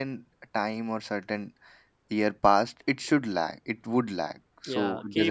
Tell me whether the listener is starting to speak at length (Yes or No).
Yes